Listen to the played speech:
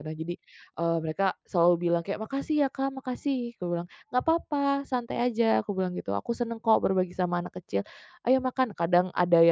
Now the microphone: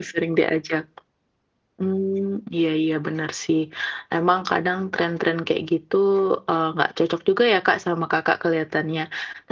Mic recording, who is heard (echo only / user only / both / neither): user only